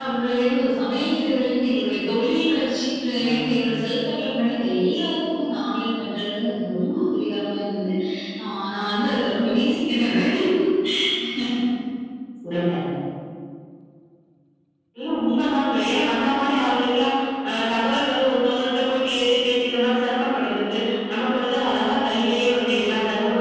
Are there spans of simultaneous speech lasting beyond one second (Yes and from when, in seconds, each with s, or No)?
No